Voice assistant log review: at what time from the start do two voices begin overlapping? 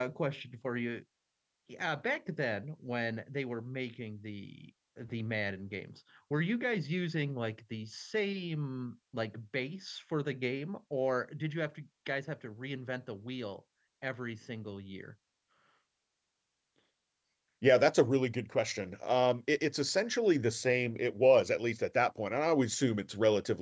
none

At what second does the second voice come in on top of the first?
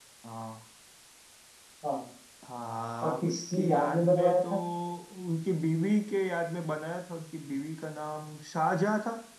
3.0 s

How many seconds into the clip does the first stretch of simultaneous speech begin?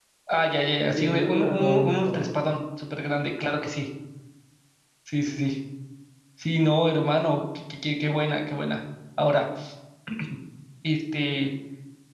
0.9 s

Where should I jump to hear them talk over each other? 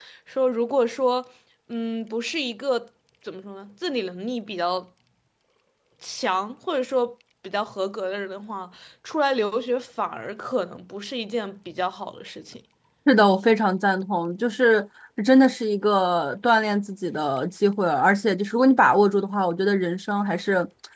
none

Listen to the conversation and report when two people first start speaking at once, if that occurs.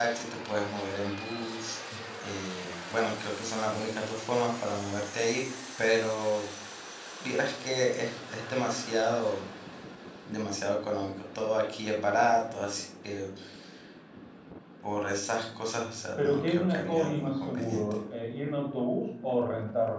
16.2 s

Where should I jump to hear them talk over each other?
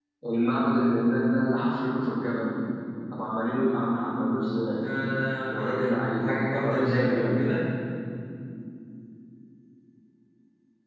5.5 s

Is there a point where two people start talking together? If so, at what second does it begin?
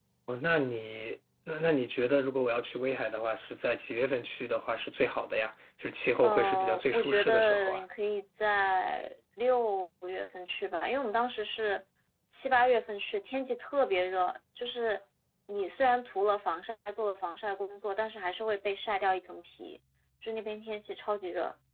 6.2 s

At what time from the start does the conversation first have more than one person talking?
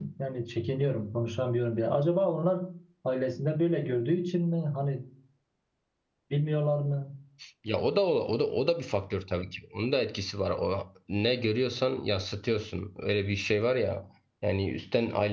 none

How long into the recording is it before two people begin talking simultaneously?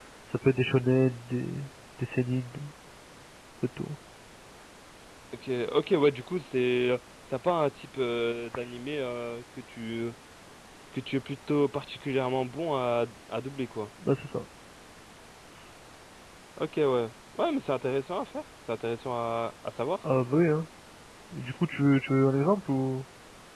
none

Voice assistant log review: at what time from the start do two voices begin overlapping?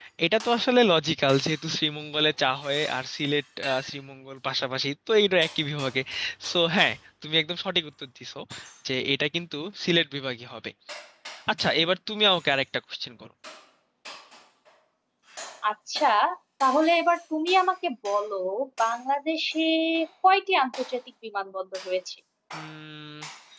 none

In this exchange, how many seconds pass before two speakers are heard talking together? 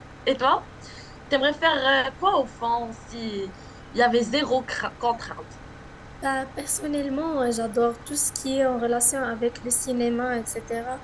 none

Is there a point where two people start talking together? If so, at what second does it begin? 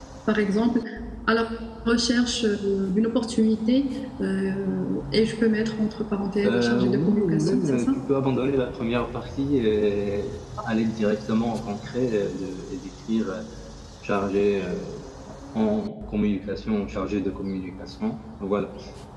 6.4 s

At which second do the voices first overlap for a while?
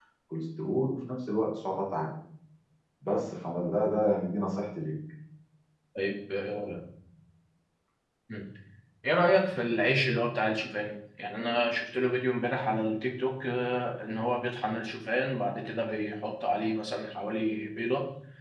none

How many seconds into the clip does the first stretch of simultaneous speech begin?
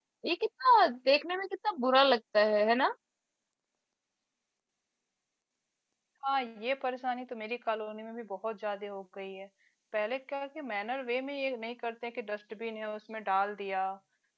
none

